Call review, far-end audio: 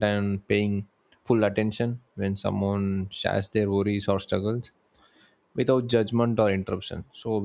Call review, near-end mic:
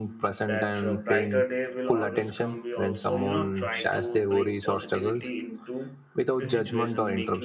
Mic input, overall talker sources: both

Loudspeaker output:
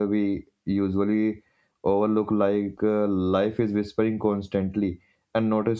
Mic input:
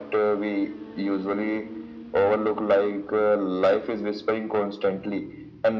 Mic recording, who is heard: echo only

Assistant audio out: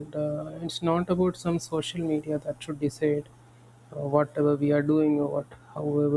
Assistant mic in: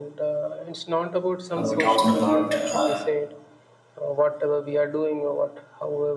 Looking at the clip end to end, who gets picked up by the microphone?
both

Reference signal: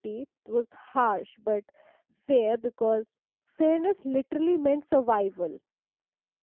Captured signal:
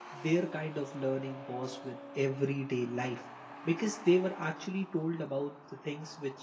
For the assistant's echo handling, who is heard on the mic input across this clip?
user only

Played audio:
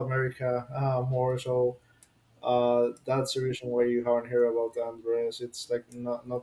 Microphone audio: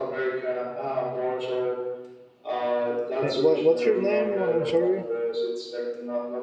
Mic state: both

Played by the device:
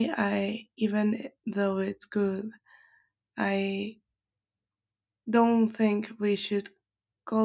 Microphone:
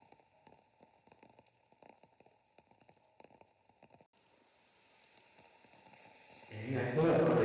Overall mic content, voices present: user only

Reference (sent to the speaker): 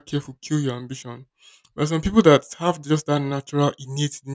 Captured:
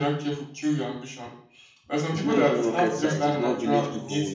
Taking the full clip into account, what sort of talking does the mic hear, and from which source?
both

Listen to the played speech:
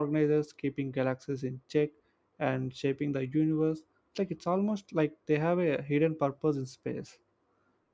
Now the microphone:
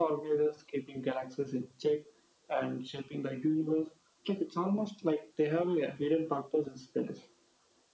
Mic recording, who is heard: echo only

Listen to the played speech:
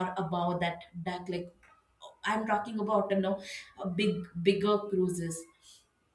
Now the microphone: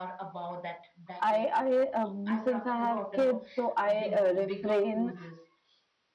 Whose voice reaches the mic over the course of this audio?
both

